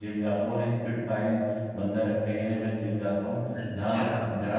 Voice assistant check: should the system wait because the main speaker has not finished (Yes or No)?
No